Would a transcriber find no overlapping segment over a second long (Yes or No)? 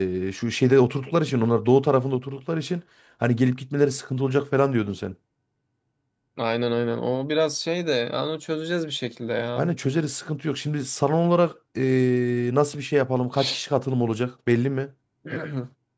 Yes